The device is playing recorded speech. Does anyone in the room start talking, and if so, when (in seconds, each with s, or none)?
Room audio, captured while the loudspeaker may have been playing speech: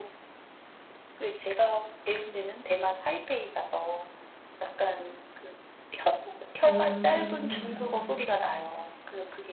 6.7 s